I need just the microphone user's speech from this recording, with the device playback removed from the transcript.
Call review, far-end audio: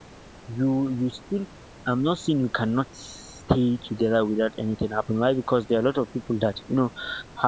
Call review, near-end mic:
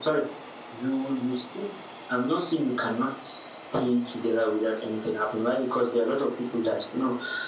none

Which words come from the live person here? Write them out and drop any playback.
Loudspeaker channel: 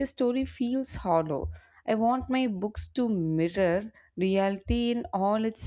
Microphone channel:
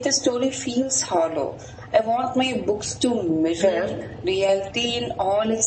And I think

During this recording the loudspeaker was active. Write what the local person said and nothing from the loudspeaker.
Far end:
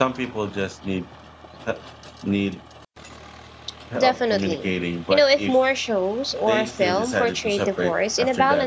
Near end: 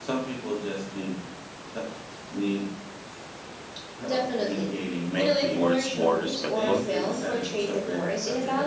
make divorce more respectful.

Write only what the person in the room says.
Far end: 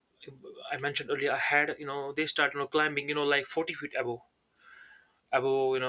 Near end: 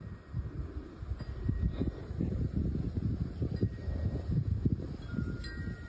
none

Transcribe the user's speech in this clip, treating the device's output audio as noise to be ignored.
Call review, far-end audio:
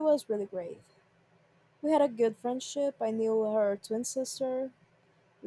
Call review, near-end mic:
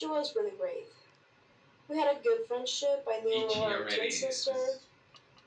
itchy already. It's

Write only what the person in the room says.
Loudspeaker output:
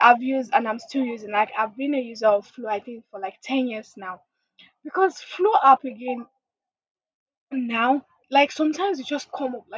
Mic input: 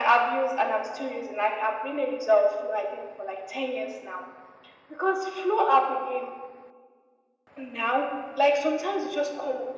none

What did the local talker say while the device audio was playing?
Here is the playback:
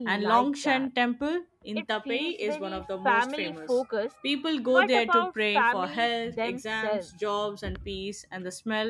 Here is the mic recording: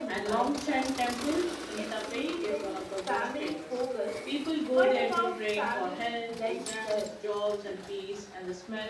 none

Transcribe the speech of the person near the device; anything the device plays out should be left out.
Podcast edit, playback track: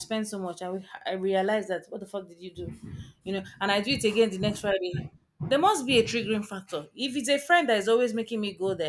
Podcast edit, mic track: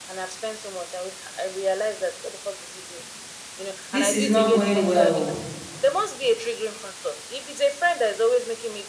this is not going well.

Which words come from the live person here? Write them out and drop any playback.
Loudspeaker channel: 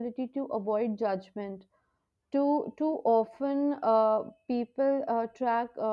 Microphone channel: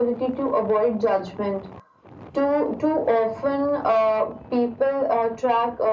none

